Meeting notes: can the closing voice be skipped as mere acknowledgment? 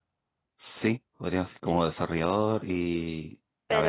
No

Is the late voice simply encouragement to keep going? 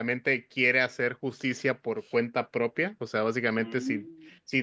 Yes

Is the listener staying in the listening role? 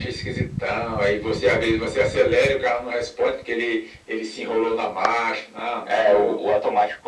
No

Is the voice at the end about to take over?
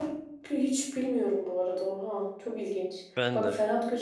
No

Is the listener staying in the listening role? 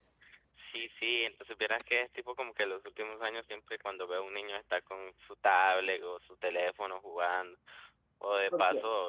Yes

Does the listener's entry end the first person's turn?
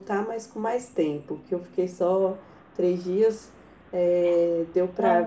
No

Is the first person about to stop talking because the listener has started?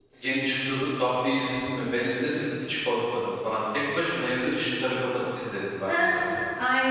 Yes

